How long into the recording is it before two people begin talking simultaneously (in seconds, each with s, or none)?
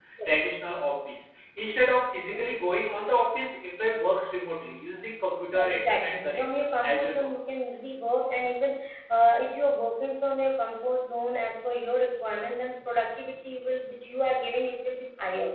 5.5 s